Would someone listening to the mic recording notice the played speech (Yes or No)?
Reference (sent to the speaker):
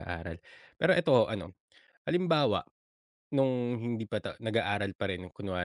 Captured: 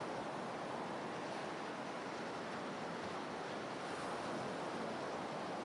No